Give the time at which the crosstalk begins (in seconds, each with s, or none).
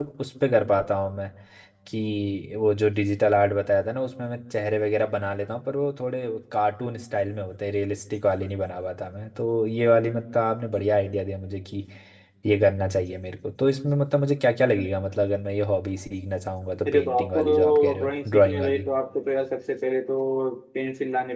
16.9 s